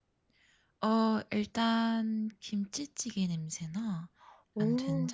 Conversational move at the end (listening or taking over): listening